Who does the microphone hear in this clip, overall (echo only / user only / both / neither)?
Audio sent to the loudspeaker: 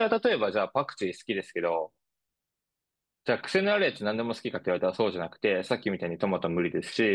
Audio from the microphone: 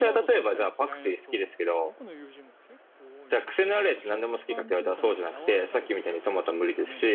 both